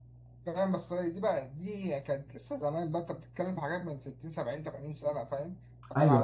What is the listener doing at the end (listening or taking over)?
listening